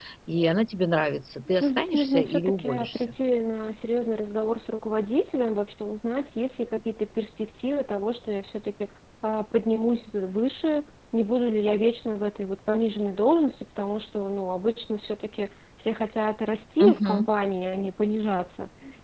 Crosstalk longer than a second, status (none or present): present